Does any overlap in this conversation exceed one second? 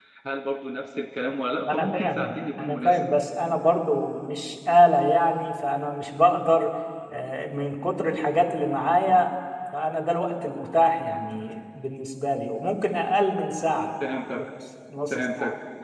Yes, from 1.7 s

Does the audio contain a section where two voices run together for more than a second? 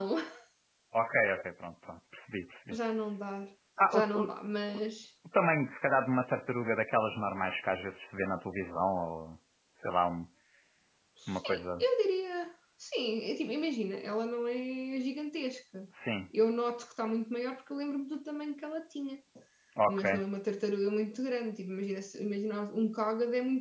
No

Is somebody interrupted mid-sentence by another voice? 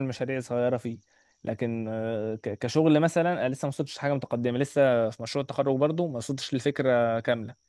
No

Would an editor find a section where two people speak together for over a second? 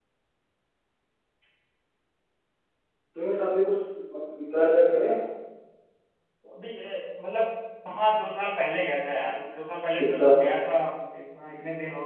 No

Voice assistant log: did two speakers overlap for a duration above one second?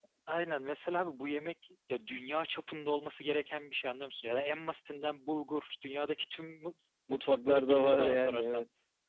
Yes, from 7.1 s

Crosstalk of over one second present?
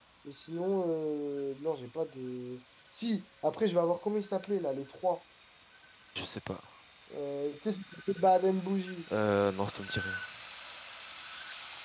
No

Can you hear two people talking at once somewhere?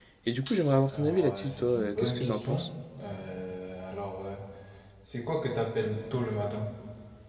Yes, from 0.9 s

